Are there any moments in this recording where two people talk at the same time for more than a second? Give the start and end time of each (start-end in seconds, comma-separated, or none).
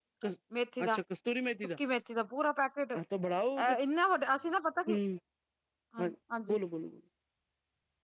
none